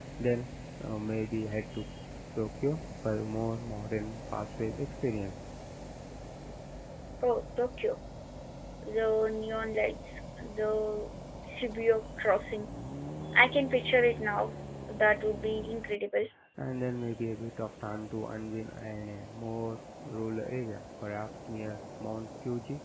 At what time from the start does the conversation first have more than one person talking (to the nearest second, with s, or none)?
none